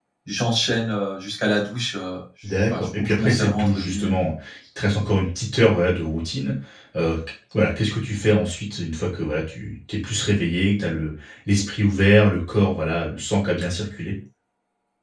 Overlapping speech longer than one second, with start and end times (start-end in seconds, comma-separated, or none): 2.6-4.2